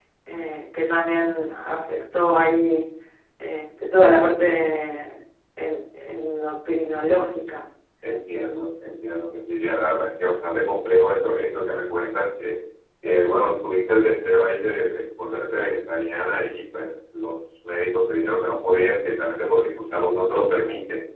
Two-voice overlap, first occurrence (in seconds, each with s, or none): none